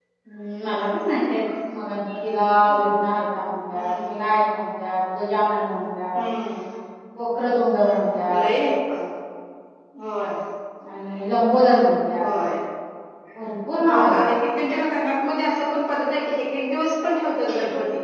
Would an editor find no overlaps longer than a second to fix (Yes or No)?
Yes